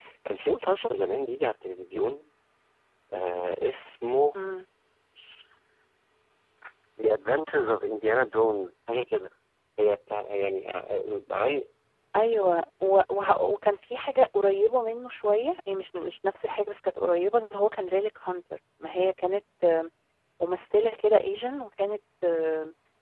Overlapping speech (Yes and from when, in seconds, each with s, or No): No